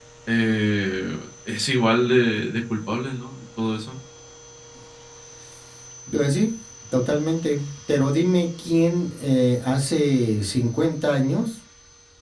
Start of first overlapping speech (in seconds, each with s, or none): none